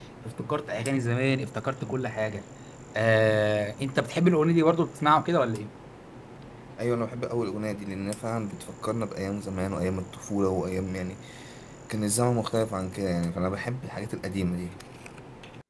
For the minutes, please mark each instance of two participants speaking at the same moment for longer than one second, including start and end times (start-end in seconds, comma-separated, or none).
none